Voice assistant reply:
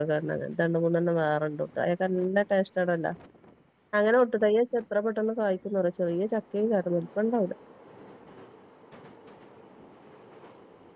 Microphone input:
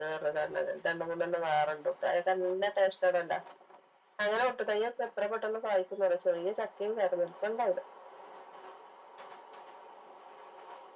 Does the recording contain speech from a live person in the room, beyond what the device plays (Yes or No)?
No